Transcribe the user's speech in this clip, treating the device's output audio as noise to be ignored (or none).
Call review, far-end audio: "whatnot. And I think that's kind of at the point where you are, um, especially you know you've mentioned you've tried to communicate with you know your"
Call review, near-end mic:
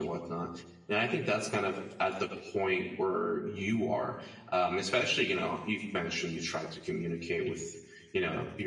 none